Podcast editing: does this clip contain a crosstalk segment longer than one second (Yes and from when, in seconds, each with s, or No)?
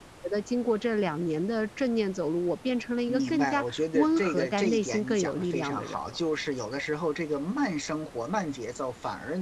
Yes, from 3.1 s